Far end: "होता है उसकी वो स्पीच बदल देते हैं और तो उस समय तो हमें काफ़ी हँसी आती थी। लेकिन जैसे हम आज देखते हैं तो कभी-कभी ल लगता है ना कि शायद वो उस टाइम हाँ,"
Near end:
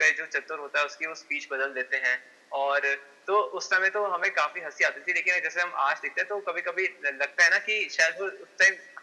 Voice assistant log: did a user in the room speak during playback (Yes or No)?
No